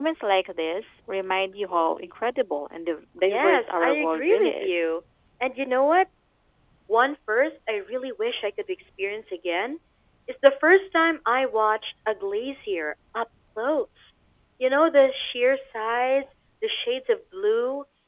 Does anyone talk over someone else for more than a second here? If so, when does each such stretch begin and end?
3.3-4.9

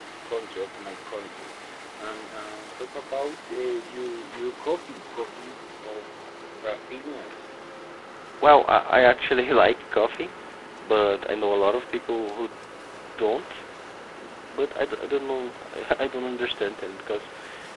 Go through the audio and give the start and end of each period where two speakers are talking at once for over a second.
none

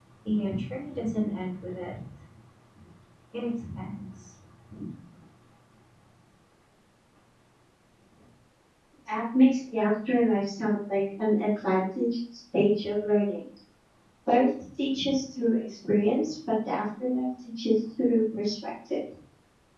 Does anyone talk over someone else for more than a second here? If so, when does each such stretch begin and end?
none

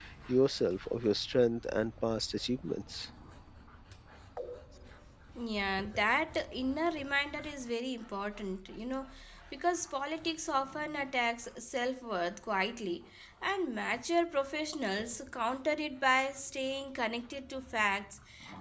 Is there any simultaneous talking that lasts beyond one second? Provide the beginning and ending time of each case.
none

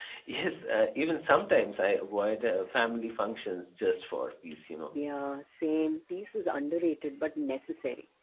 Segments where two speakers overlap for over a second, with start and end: none

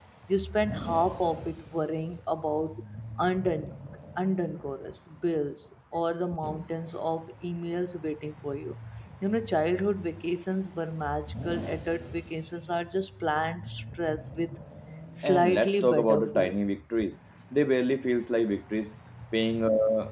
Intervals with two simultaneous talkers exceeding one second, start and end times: 15.2-16.6

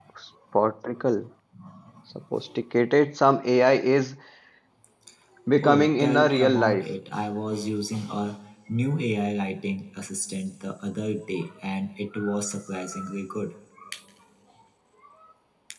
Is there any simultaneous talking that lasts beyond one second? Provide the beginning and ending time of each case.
5.6-6.8

